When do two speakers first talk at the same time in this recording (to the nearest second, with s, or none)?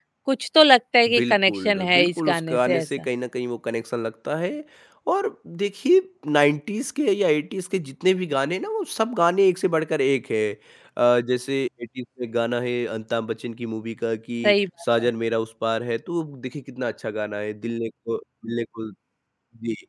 1 s